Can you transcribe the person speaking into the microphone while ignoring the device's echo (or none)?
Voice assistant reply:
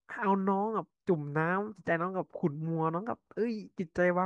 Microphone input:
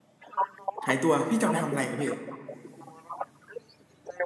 หายตัวพี่จะเอาไปทำอะไรอะพี่